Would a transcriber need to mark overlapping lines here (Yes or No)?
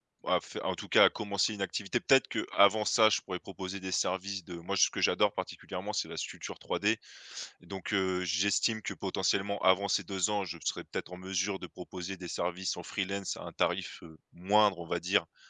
No